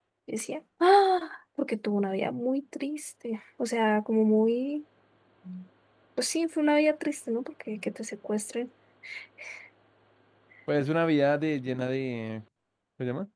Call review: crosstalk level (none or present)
none